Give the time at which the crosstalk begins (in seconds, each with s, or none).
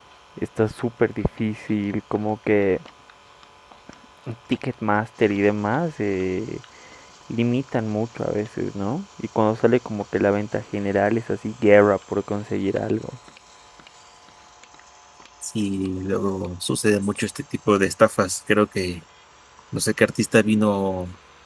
none